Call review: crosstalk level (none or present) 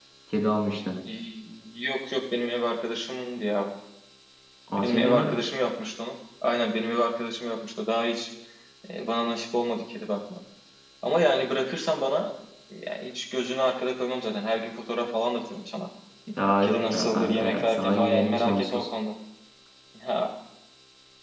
present